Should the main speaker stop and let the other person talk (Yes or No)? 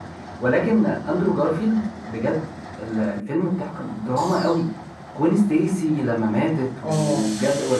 No